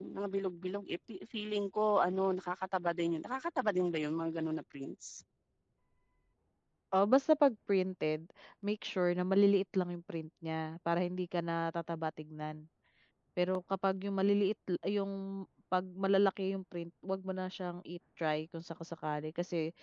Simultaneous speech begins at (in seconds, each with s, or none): none